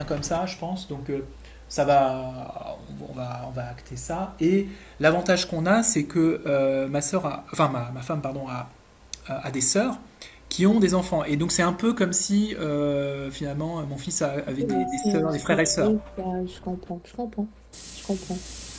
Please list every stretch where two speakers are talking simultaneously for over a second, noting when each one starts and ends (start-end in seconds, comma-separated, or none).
14.6-15.9